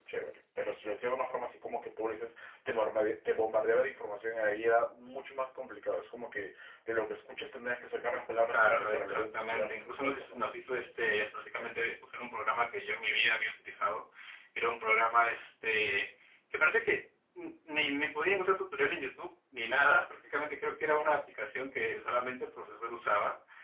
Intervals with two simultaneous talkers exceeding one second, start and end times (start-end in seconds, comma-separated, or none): 8.5-10.4